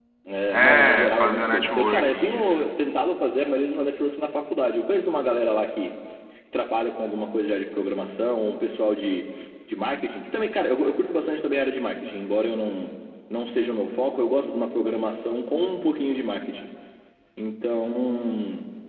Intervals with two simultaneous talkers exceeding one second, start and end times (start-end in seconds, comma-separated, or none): 0.5-2.6